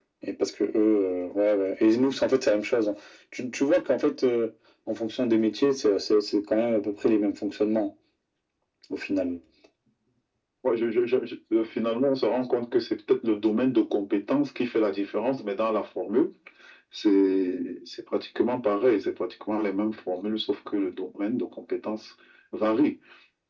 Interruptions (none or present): none